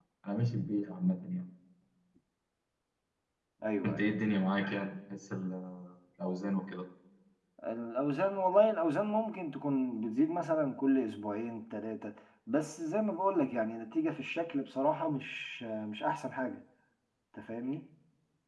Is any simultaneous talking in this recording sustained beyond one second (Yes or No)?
No